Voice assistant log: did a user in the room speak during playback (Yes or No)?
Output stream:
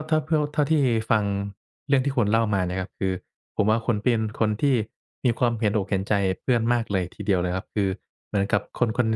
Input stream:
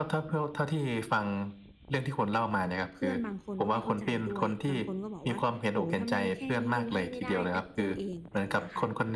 Yes